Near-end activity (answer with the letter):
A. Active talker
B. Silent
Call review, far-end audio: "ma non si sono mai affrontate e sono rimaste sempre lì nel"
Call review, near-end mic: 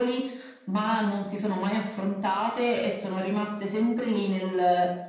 B